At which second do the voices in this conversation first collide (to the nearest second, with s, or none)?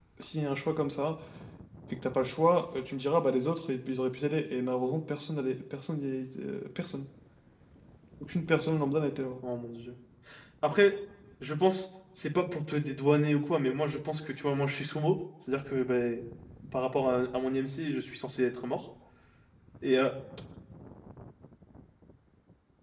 none